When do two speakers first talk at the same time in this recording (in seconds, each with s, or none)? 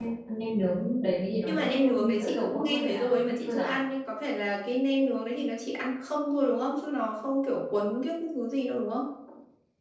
1.4 s